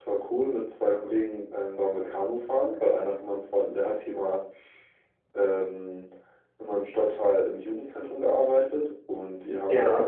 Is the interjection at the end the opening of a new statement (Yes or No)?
No